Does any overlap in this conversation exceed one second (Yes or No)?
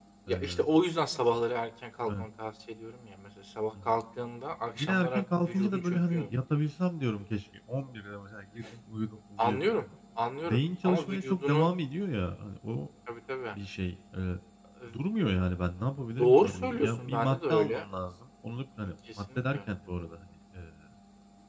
Yes